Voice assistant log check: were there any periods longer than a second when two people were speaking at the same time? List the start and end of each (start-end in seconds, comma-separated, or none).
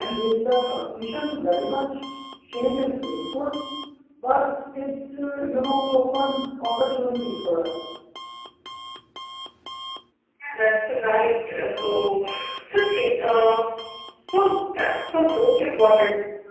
none